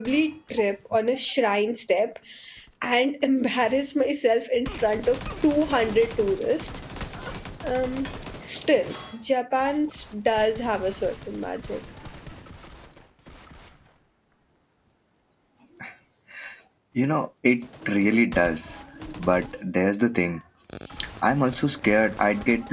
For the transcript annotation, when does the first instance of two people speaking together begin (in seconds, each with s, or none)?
none